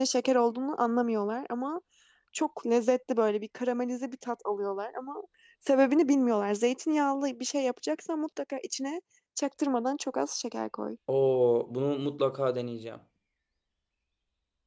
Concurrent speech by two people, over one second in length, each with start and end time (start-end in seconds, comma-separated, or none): none